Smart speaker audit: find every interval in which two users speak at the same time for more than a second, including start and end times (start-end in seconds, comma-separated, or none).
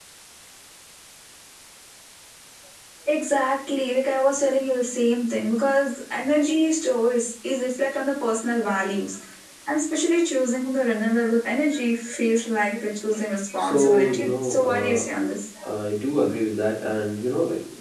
13.6-15.1